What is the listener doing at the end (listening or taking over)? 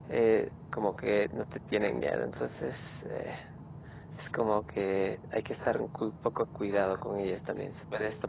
listening